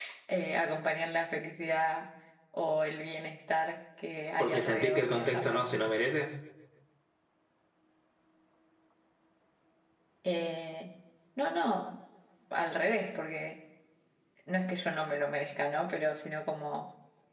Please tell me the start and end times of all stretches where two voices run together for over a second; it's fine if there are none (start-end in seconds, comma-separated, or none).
4.4-5.8